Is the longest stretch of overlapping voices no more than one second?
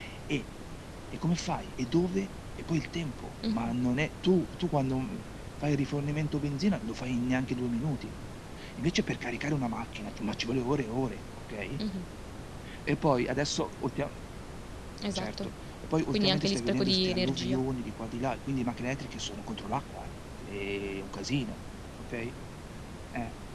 No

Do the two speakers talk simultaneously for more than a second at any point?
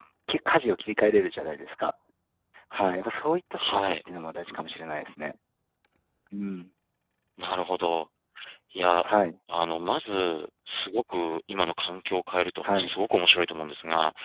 No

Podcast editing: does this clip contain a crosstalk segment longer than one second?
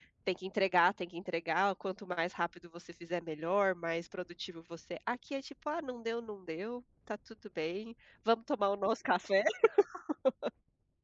No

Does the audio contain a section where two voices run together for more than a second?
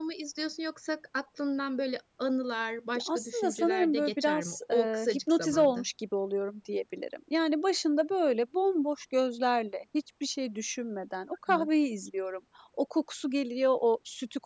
Yes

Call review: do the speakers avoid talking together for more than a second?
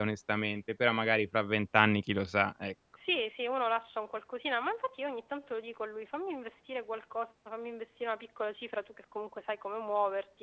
Yes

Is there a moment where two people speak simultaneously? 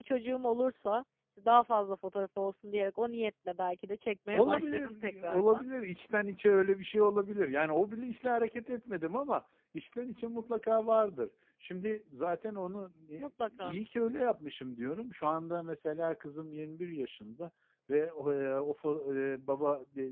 Yes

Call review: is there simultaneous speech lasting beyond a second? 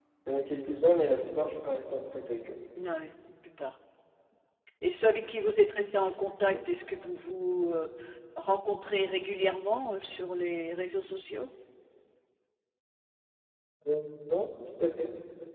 No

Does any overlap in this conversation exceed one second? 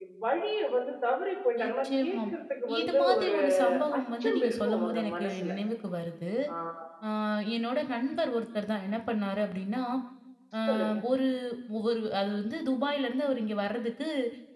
Yes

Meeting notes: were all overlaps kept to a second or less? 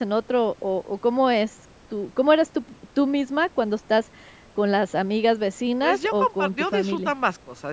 No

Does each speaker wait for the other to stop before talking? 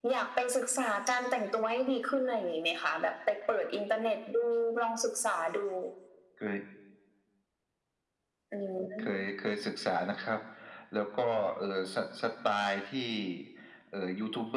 Yes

